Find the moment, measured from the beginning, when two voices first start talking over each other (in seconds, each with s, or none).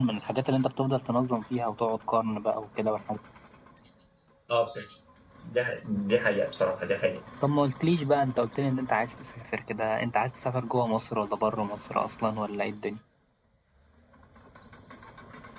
none